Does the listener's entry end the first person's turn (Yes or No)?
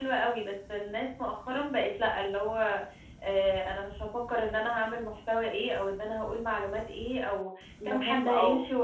No